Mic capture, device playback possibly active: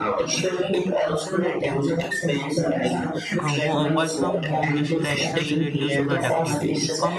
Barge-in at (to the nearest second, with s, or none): 3 s